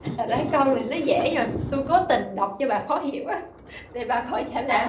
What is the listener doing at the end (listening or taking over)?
taking over